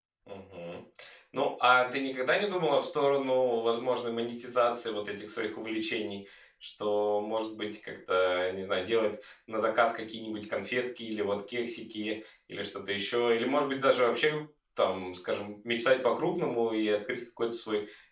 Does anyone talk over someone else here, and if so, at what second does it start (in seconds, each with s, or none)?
none